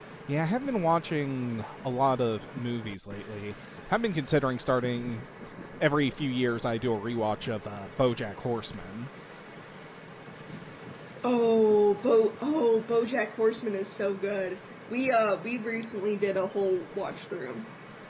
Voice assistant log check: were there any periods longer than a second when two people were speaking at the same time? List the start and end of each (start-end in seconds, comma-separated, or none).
none